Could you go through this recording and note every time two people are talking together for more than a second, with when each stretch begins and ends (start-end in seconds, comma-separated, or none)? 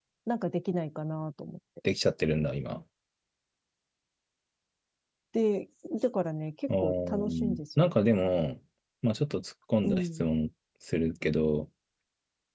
6.7-7.9